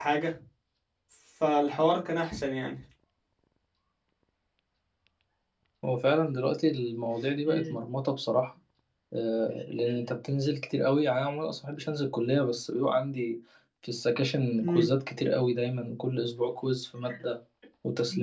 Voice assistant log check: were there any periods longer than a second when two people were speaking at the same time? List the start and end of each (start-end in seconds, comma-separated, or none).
none